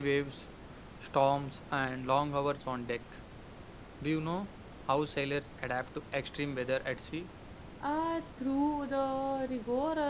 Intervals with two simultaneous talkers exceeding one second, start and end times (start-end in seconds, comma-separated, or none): none